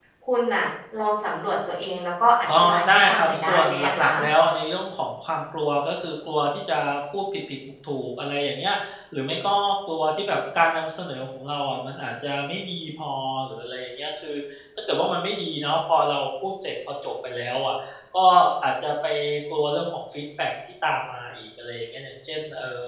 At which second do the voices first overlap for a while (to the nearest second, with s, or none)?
2 s